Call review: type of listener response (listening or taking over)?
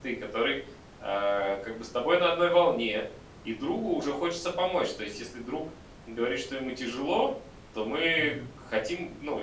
listening